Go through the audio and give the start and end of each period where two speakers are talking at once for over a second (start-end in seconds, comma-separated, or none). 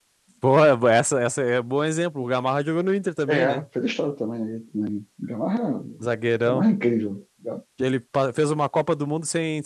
none